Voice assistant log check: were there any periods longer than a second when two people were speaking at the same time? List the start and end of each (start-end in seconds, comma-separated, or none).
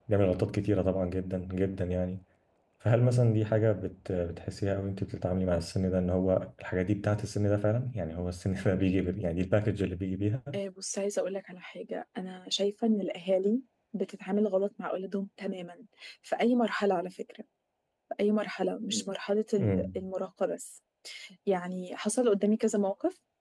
none